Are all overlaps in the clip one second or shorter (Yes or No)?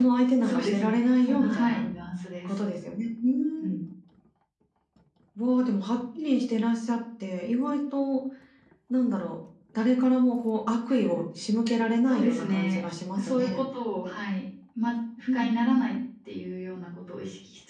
No